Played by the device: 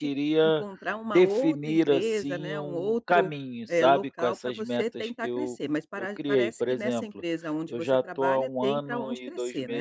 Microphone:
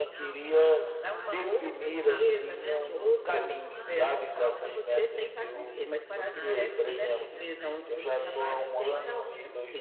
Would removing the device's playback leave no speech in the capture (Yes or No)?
No